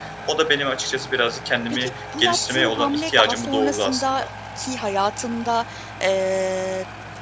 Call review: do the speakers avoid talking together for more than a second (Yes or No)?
No